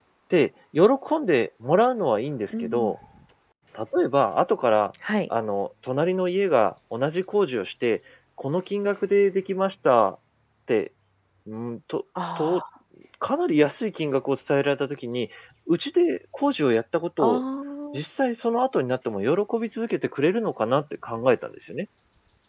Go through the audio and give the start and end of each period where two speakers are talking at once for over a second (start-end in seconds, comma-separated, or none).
none